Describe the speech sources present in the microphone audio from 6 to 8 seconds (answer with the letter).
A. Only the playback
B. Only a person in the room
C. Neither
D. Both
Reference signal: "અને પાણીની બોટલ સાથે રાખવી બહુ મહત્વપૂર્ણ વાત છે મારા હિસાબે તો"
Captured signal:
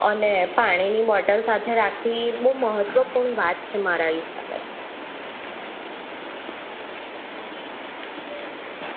C